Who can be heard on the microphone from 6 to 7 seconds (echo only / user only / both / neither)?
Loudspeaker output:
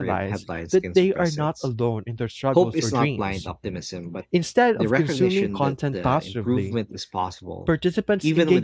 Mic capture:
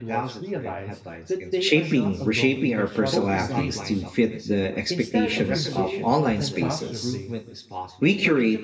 both